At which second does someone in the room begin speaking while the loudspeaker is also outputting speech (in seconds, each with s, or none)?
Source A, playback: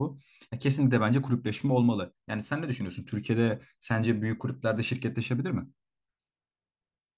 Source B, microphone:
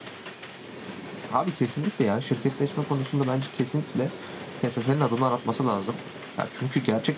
1.3 s